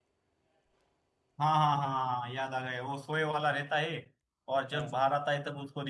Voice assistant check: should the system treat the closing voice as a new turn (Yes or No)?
No